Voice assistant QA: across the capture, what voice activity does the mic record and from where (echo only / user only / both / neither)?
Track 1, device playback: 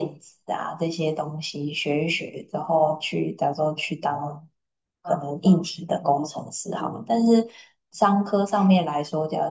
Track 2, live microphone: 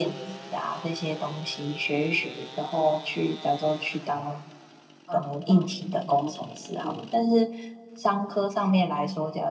echo only